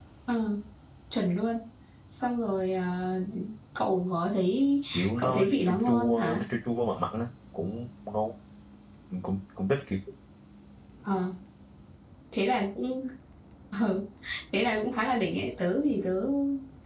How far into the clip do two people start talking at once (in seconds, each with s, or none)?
5.2 s